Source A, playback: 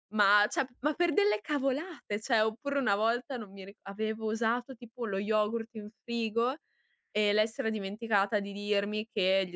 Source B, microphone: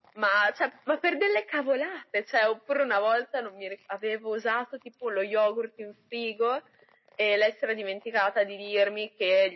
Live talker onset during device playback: none

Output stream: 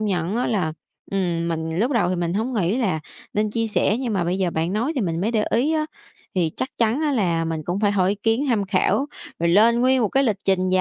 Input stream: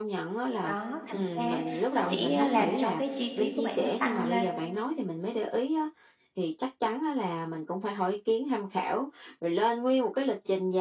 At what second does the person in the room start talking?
0.6 s

